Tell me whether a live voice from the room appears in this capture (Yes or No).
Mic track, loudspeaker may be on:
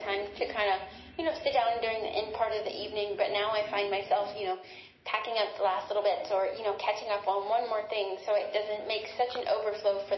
No